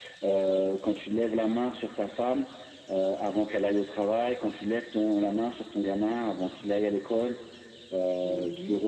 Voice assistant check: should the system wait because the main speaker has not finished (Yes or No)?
No